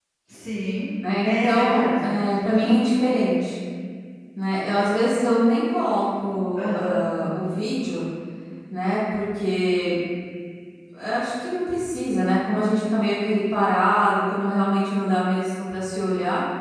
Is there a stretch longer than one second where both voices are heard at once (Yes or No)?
Yes